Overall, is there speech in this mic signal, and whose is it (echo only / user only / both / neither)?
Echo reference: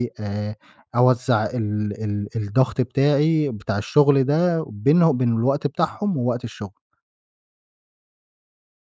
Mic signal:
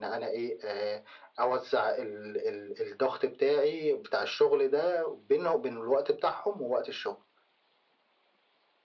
echo only